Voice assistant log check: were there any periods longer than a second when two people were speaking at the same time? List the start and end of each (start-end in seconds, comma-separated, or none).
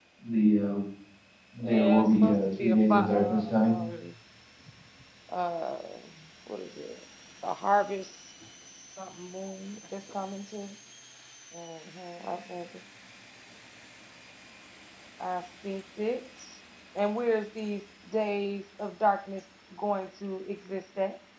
1.6-3.8